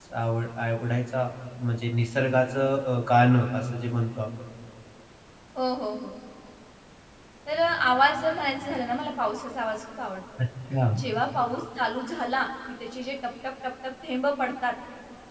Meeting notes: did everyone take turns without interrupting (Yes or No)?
Yes